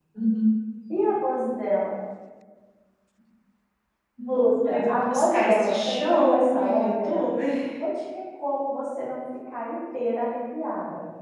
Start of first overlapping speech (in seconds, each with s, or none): 4.2 s